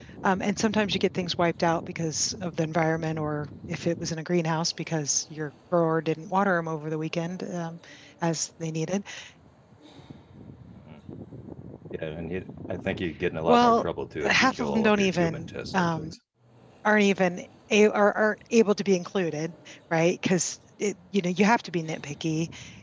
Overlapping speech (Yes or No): Yes